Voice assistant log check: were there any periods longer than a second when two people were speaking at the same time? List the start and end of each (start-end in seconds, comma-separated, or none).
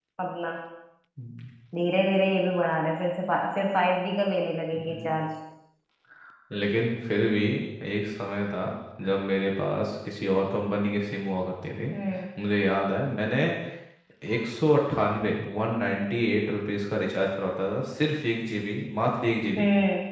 none